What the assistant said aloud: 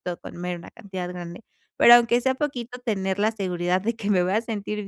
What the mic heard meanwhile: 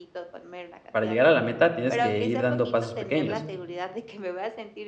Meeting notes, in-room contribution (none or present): present